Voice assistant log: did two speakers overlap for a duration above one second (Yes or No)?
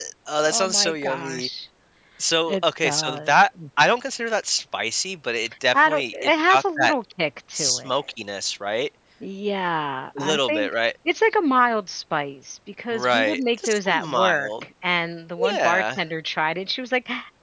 Yes